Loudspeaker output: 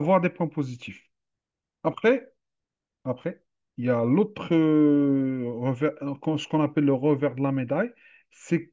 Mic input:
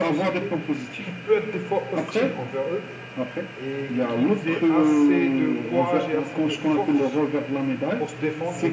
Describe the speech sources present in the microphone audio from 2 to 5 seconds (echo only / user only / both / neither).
both